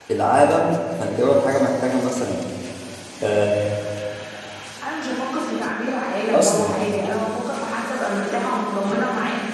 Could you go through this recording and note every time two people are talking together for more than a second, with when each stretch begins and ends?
none

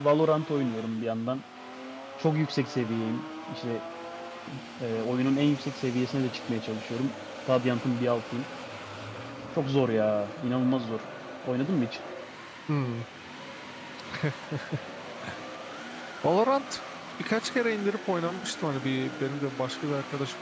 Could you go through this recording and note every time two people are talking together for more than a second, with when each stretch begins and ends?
none

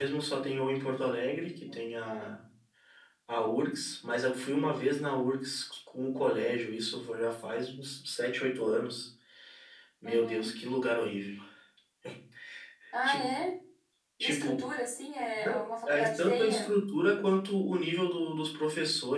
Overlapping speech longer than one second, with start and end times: 15.3-16.7

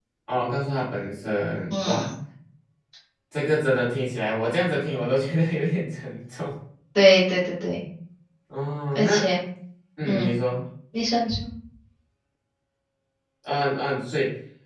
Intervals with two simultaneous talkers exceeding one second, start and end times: none

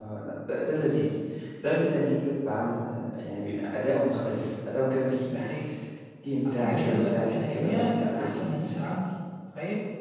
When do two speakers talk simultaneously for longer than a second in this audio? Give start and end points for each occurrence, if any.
6.5-8.8

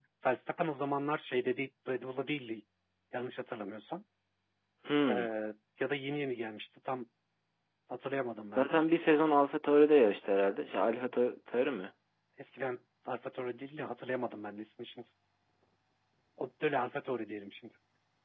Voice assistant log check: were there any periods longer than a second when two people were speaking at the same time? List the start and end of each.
none

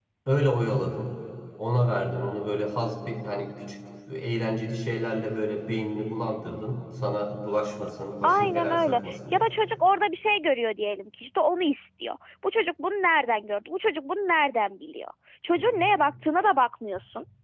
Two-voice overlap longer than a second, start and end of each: 8.2-9.5

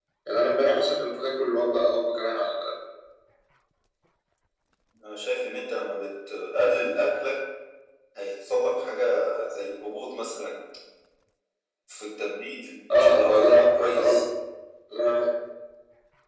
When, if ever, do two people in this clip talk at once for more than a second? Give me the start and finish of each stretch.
12.9-14.2

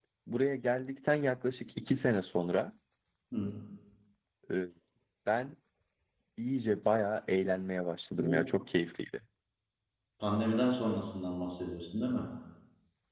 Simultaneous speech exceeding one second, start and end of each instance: none

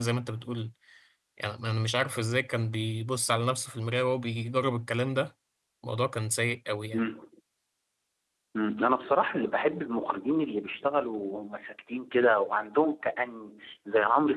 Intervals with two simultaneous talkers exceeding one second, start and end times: none

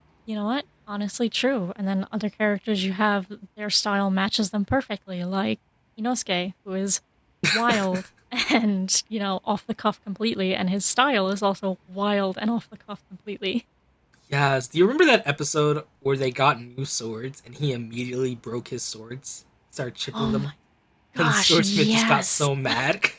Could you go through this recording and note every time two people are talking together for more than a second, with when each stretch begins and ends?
21.2-22.5

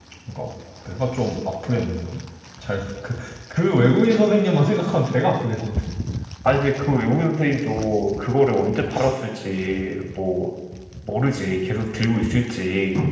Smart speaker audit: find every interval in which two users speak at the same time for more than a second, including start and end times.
none

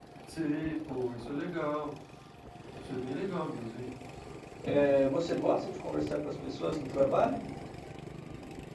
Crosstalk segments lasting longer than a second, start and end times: none

